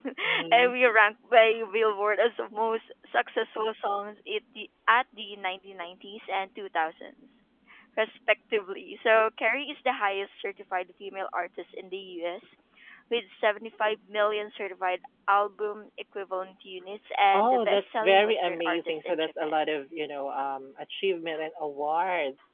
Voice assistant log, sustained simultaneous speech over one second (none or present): present